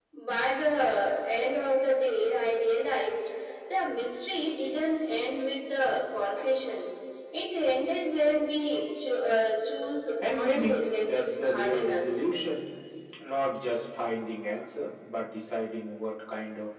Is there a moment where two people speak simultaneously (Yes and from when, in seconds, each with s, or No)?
Yes, from 10.2 s